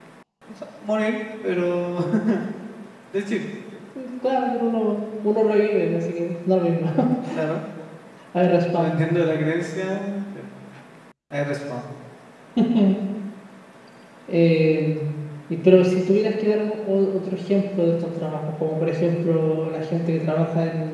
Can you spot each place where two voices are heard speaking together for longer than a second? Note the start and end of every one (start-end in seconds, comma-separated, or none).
none